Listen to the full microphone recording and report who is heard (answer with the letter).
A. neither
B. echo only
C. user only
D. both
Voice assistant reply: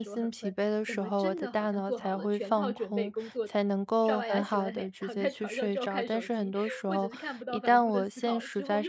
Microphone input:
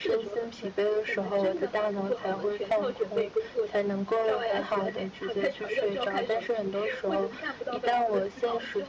B